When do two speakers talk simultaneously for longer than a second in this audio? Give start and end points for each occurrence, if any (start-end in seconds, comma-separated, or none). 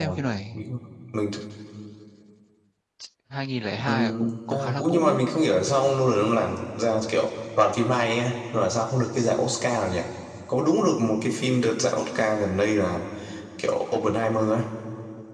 3.9-5.2